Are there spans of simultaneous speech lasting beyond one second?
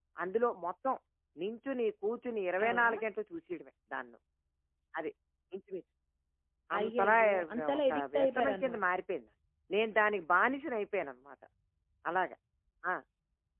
Yes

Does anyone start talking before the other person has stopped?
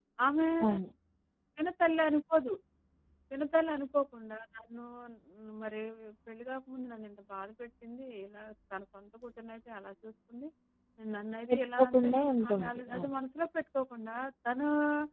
Yes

